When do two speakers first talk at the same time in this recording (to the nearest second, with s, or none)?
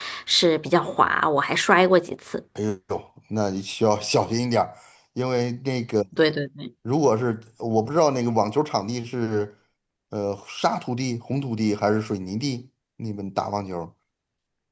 none